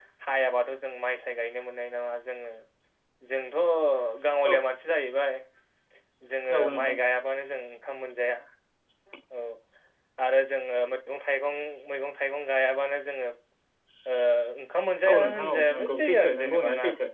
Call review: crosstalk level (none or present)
present